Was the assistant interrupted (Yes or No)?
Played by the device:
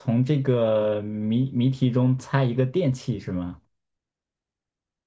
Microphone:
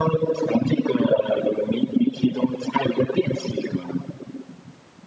No